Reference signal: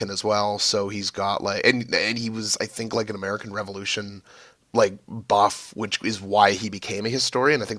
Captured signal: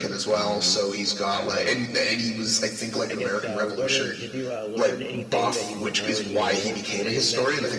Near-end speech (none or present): present